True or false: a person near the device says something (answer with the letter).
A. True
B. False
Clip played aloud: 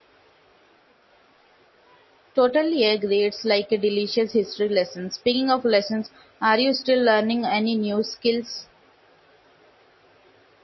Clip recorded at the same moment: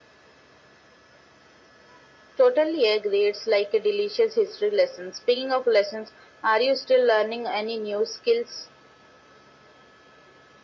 B